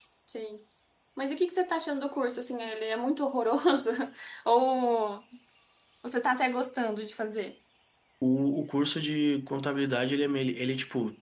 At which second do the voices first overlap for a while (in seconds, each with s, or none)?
none